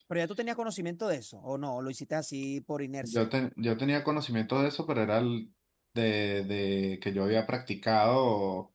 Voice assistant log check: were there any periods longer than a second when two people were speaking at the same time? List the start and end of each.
none

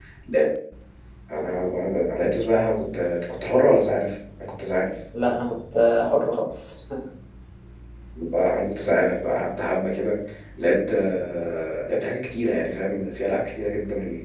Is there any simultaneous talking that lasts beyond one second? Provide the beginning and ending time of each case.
none

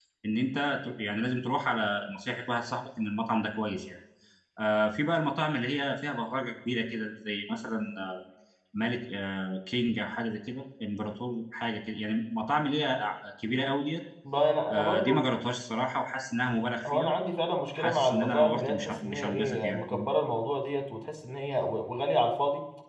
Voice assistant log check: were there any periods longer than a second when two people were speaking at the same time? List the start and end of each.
17.8-19.8

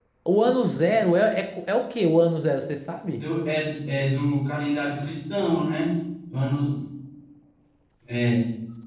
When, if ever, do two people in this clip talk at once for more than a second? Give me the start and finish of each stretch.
none

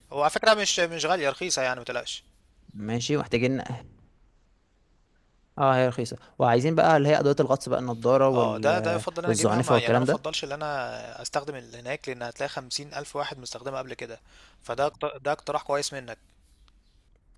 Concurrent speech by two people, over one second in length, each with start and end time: 8.3-10.2

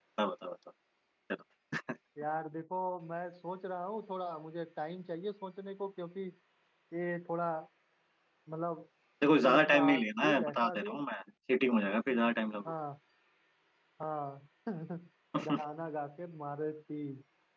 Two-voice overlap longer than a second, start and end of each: 9.6-11.0

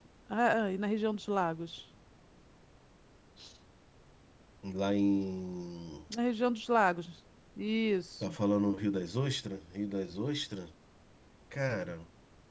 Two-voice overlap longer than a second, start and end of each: none

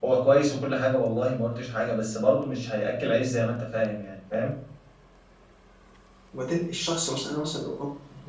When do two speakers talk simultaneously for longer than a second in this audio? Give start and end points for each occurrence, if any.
none

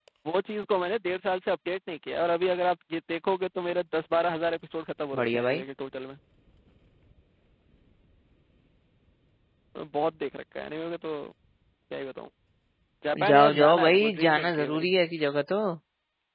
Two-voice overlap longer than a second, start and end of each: 13.3-14.9

